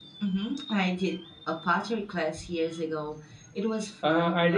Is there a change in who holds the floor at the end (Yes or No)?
Yes